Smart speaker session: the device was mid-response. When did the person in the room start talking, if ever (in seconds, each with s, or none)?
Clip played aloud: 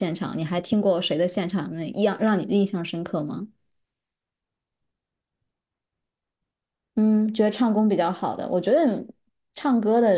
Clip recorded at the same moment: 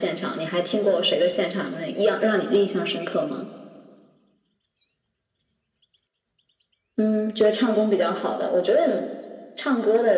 none